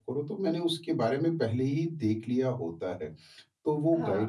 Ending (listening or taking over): listening